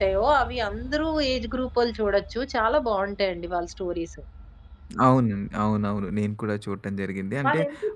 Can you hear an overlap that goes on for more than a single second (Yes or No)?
No